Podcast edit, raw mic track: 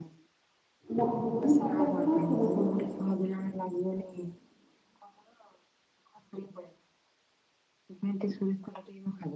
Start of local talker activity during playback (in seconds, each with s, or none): 0.9 s